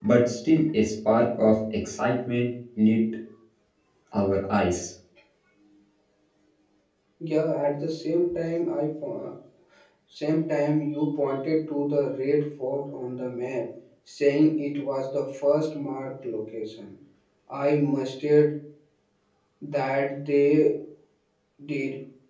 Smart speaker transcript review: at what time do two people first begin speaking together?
none

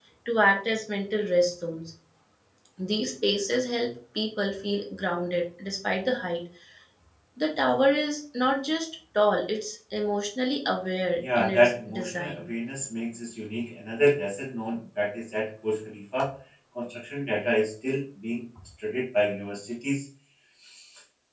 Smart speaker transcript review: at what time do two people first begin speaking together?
11.2 s

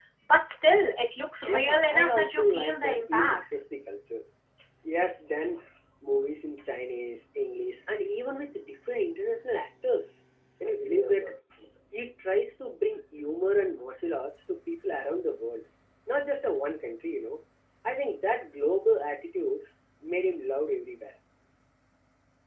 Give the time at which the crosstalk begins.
1.5 s

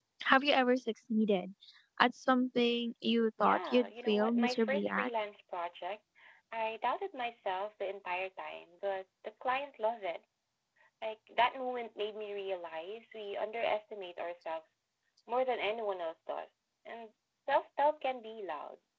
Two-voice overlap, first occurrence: 3.4 s

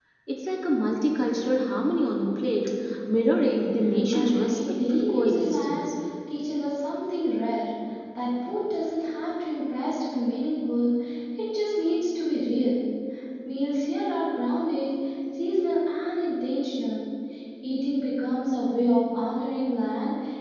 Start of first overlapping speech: 4.1 s

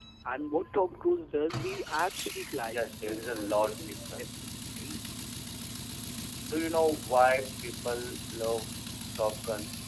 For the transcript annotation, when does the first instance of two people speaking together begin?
2.7 s

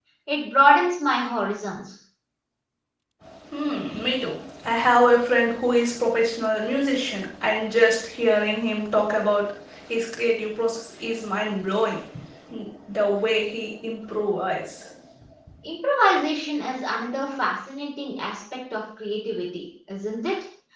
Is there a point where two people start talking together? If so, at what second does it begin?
none

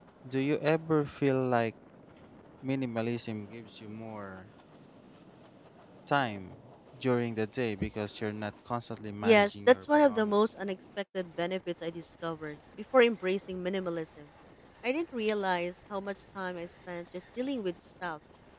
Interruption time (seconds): 9.2 s

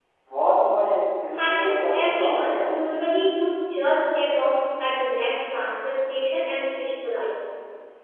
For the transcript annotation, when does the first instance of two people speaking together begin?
1.3 s

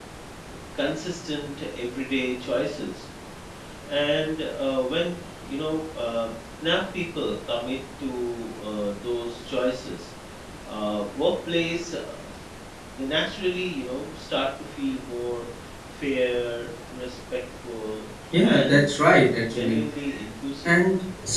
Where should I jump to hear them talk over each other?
18.3 s

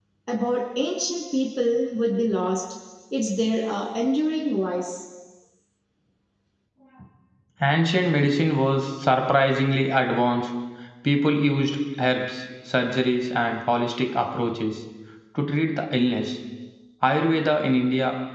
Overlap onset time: none

